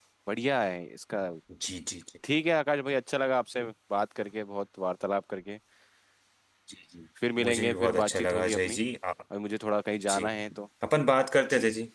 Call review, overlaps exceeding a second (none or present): present